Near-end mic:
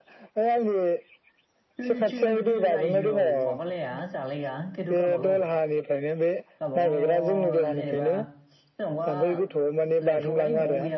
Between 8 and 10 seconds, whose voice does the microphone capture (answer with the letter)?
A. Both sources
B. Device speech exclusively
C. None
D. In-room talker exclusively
A